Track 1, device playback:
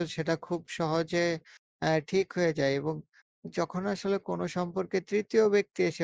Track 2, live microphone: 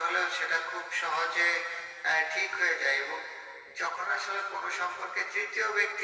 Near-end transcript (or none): none